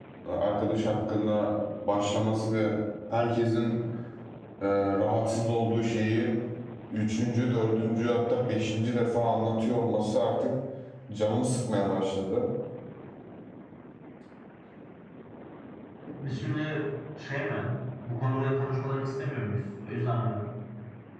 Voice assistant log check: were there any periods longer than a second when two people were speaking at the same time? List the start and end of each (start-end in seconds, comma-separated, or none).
none